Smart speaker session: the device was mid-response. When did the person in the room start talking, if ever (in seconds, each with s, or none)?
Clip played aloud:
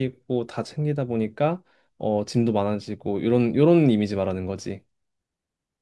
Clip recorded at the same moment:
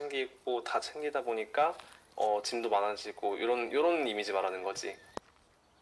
none